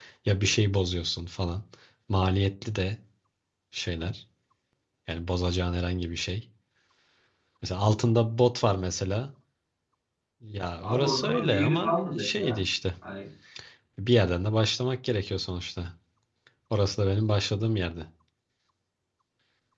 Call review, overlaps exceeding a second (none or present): present